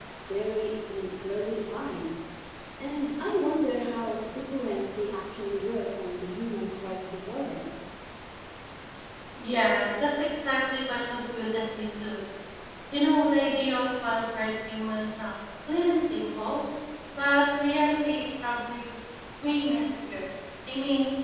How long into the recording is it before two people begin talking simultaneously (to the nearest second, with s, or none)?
none